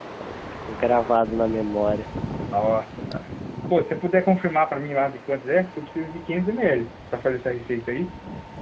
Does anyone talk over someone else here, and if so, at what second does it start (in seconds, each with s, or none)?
none